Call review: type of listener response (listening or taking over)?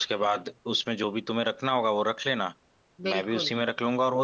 listening